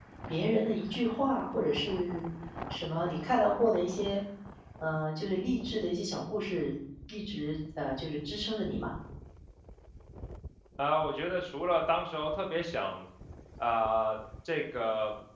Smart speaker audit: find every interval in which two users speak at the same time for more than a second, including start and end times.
none

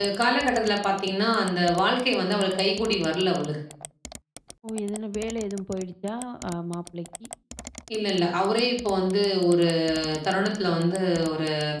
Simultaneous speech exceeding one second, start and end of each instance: none

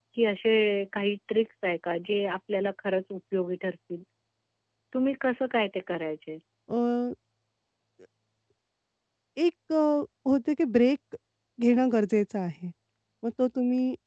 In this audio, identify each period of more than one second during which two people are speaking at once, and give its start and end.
none

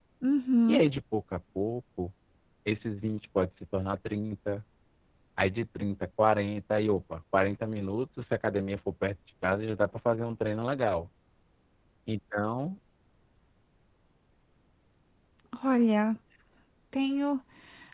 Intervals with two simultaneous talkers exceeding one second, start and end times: none

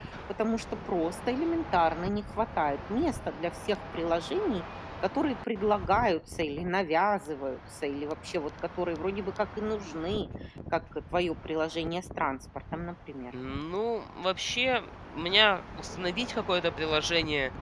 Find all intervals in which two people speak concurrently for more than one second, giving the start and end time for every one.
none

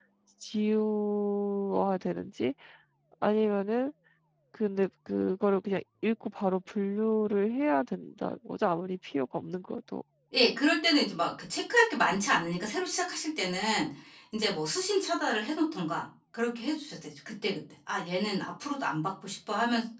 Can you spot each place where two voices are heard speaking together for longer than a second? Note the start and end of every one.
none

